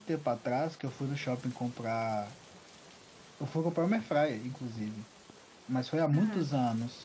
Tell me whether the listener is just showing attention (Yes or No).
Yes